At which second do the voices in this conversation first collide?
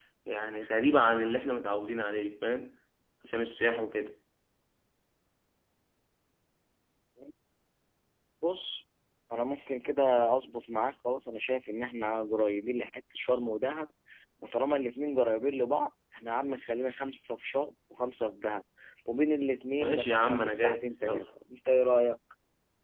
19.8 s

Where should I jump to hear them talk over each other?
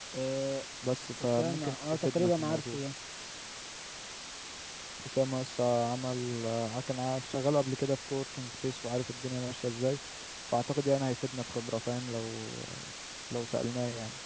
1.2 s

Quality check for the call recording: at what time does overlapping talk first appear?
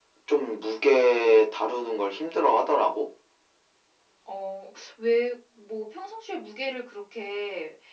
none

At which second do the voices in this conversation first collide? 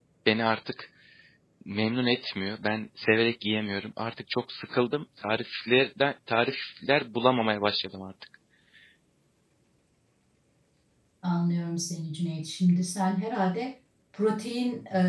none

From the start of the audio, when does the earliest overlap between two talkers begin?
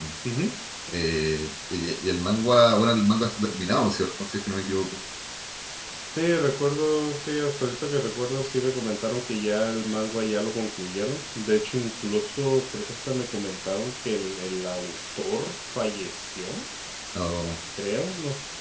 none

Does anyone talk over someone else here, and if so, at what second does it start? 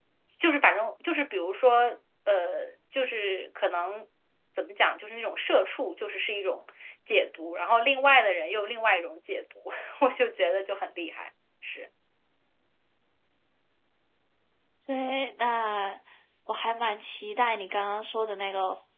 none

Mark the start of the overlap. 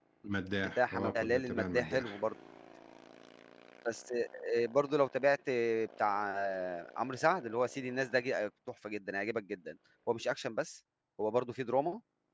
0.8 s

